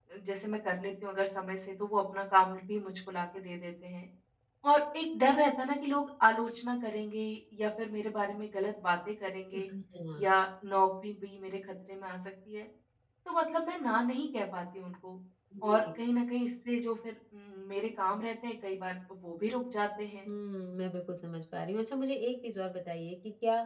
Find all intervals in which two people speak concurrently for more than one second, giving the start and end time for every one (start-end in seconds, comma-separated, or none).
none